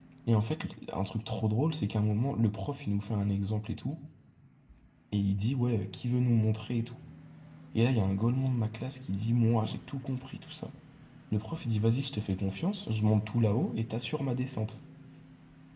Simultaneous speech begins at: none

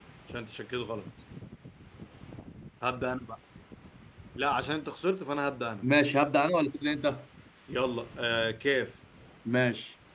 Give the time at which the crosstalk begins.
none

